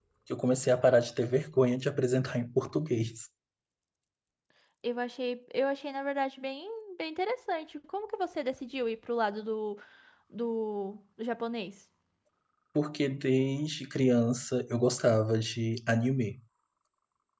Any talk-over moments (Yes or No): No